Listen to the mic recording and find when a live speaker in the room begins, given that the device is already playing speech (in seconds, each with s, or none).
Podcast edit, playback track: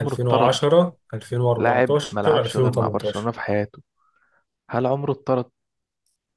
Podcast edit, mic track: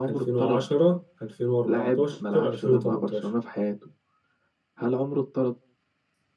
none